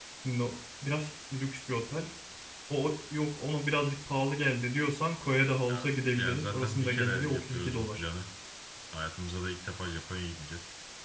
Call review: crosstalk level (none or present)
present